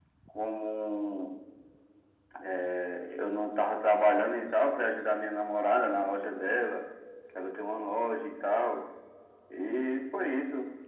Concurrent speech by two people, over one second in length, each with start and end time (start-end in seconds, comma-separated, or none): none